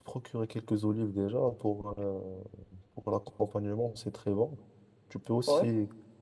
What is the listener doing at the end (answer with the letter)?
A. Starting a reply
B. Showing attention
B